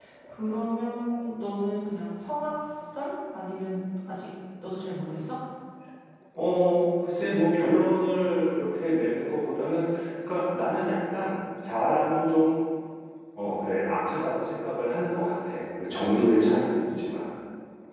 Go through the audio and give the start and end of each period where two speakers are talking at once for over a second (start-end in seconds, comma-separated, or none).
none